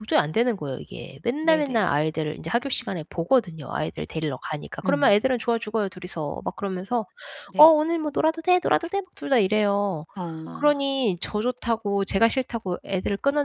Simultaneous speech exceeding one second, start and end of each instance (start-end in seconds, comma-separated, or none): none